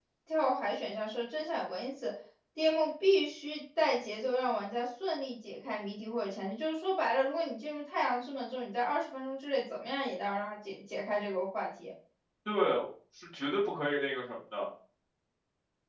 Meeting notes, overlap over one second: none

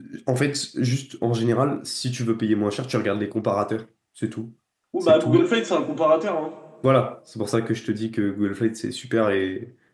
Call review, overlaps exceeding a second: none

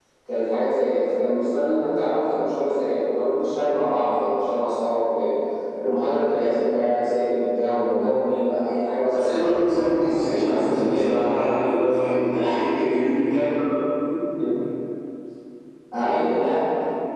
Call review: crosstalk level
present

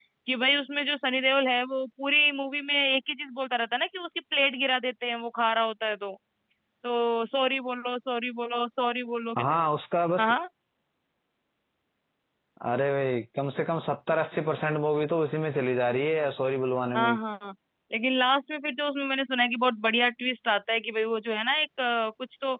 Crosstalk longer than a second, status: none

